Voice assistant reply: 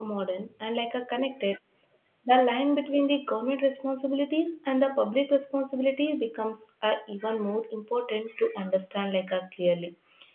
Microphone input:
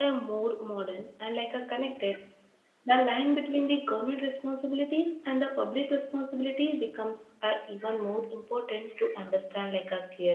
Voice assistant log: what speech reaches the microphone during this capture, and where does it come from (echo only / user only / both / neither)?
echo only